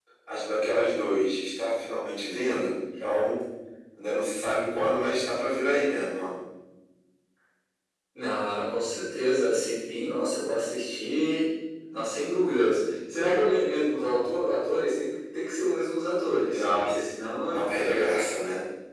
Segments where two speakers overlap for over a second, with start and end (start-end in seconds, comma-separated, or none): none